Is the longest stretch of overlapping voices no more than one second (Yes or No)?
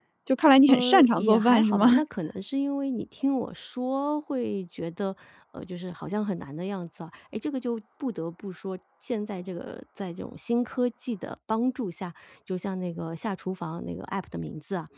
No